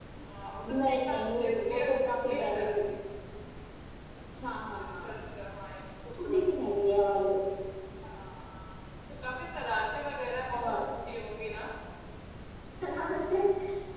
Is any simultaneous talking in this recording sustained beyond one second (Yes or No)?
Yes